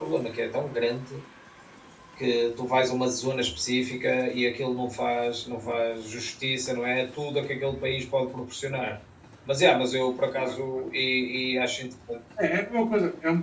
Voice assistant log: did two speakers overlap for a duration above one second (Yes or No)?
No